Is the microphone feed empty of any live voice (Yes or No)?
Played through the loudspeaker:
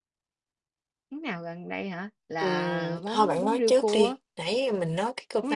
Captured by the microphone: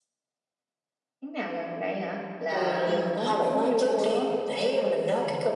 No